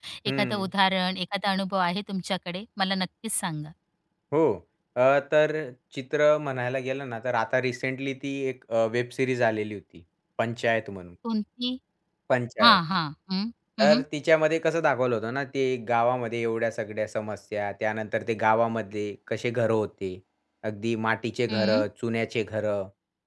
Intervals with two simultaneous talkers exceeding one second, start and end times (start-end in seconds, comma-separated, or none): none